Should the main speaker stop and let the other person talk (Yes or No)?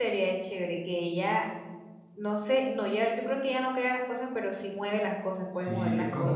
Yes